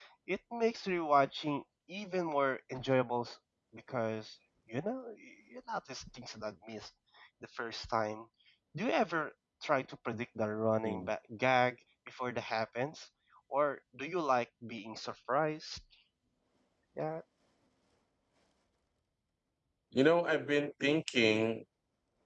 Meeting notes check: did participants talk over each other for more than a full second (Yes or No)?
No